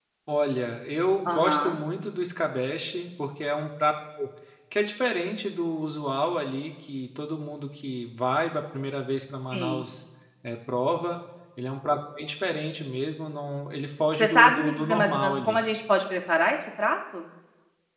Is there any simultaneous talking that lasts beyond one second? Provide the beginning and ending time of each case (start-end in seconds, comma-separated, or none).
14.2-15.6